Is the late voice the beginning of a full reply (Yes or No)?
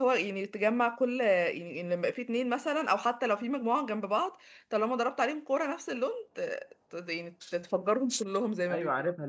Yes